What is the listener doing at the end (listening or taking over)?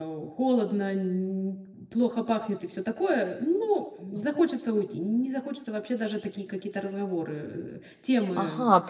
taking over